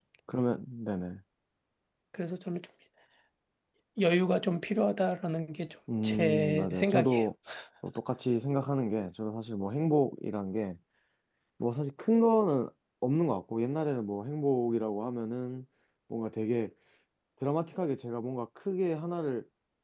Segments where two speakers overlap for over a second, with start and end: 6.0-7.3

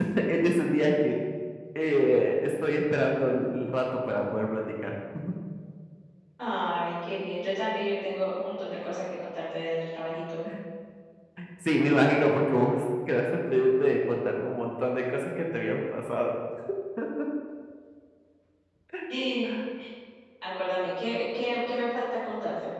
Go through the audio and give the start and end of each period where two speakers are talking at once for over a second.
none

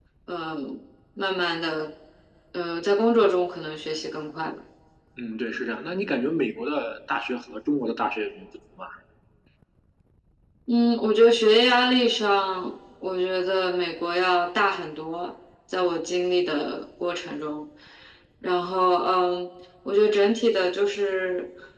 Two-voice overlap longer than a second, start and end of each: none

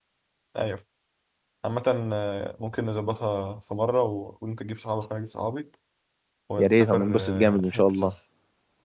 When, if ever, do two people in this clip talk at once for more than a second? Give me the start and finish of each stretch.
6.6-8.1

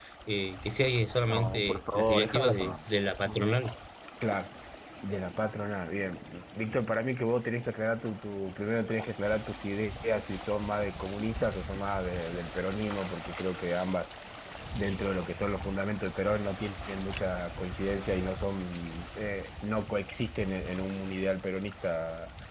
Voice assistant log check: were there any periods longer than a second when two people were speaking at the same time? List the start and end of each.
1.3-2.8

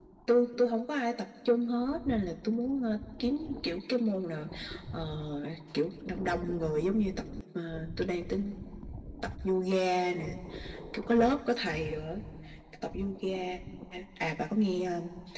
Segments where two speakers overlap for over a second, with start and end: none

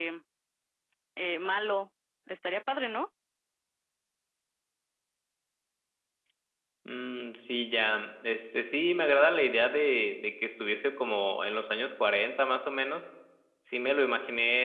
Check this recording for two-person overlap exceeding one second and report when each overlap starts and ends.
none

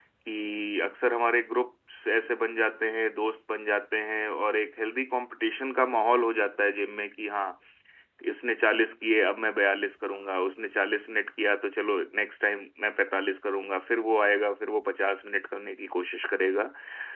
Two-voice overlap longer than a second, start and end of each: none

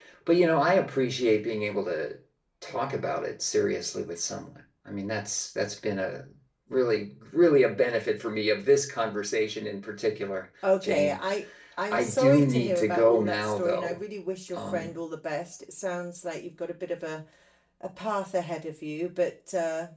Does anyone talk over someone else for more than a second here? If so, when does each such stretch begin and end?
11.9-14.0

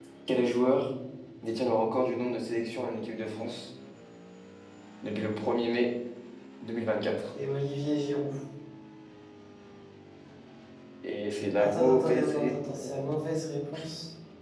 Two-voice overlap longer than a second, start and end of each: 11.6-13.1

